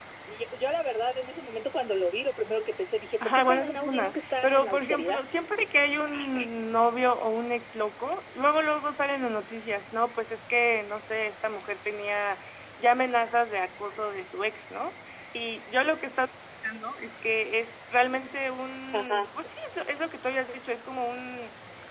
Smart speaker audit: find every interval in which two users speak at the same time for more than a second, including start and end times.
3.2-5.2

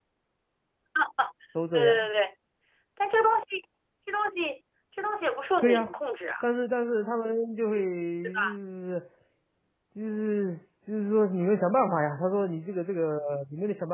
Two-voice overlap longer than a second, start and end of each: none

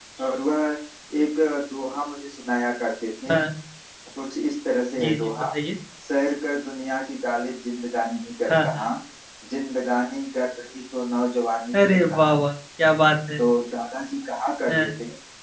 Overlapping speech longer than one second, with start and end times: none

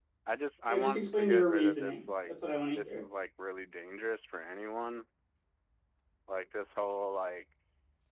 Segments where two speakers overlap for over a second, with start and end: 0.7-2.3

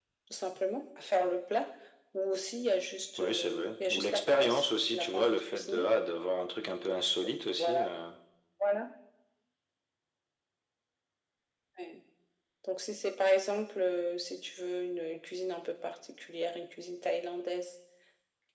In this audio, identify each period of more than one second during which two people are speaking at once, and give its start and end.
3.2-5.9

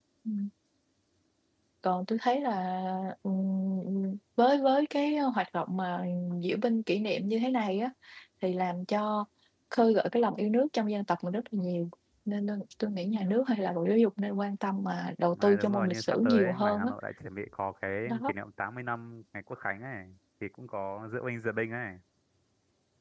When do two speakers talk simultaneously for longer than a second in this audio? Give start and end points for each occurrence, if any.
15.3-16.9

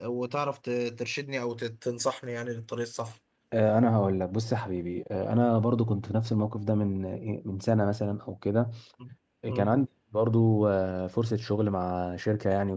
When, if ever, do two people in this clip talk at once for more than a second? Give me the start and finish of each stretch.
none

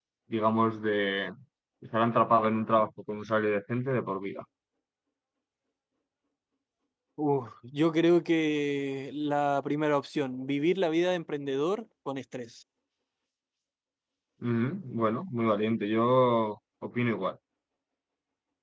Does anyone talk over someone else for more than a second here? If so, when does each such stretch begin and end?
none

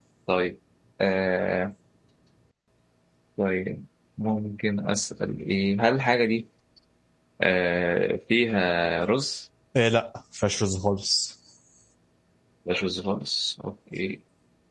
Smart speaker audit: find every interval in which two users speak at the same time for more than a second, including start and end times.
none

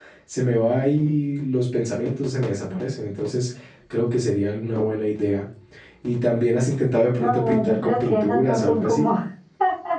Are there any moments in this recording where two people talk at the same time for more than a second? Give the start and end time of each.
7.2-9.1

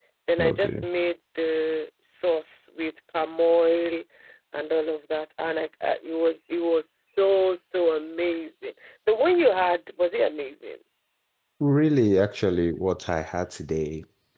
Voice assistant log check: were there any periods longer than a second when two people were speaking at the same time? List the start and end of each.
none

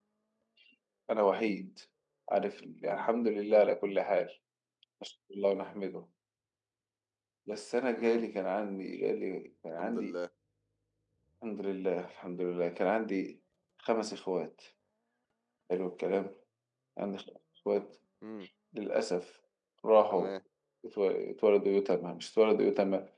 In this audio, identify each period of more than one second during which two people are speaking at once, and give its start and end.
none

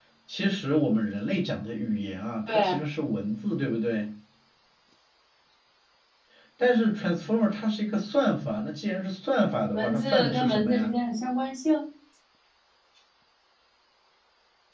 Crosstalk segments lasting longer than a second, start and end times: 9.7-11.0

